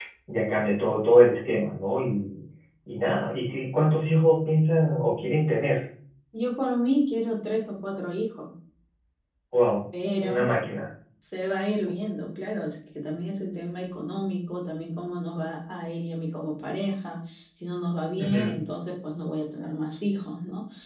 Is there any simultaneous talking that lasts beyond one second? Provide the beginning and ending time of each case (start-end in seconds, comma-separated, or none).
none